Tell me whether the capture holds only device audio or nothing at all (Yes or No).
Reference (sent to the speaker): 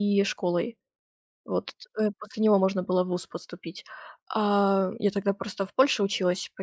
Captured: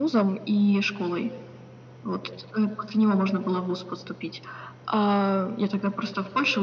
Yes